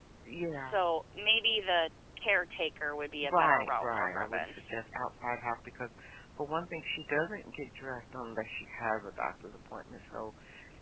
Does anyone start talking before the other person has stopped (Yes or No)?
Yes